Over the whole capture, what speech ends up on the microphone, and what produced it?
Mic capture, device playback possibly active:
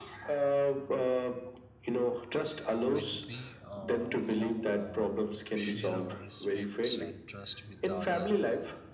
both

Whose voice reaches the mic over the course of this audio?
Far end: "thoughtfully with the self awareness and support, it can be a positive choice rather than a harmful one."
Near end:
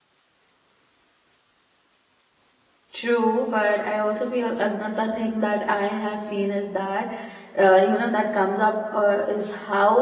user only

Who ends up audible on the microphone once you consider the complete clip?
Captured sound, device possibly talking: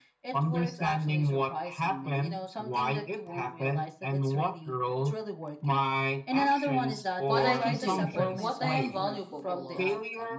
both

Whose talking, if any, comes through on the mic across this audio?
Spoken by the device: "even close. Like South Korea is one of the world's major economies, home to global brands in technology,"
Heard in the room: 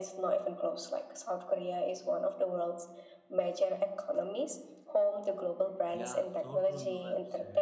both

